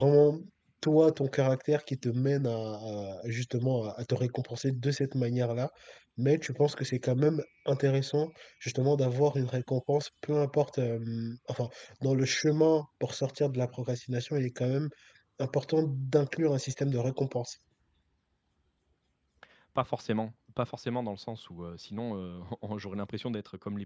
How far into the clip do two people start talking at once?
none

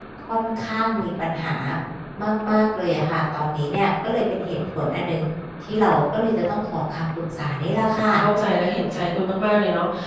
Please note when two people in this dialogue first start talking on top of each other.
none

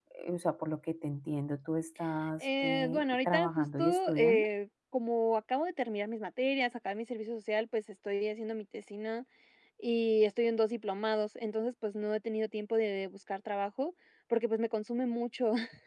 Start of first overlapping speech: 2.4 s

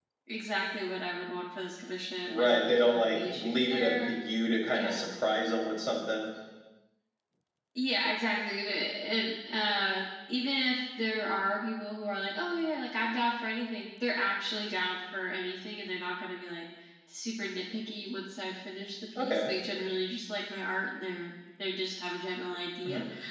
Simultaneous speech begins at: 2.3 s

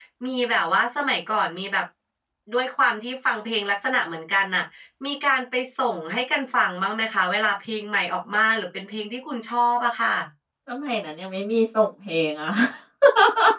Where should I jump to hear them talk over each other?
none

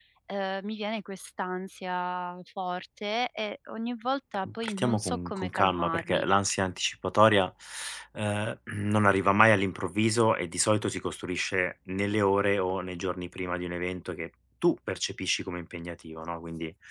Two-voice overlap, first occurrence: 4.5 s

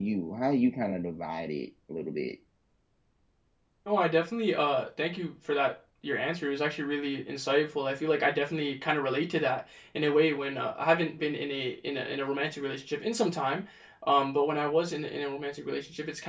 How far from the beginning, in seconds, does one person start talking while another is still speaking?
none

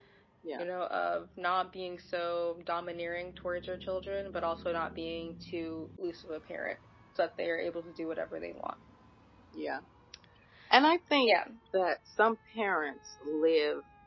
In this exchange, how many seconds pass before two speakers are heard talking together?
none

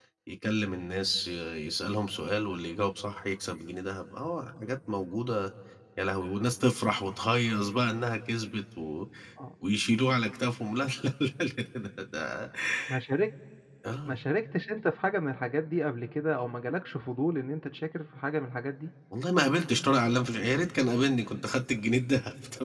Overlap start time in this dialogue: none

